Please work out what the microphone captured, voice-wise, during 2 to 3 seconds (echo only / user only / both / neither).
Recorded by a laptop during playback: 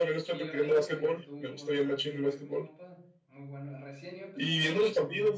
both